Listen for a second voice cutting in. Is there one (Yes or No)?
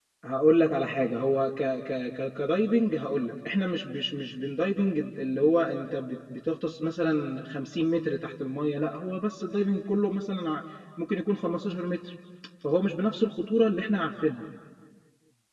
No